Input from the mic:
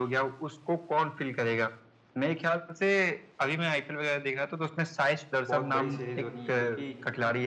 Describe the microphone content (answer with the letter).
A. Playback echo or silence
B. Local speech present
B